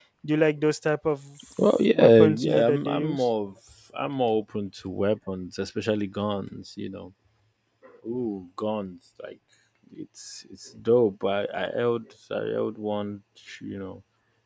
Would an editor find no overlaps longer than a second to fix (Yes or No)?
No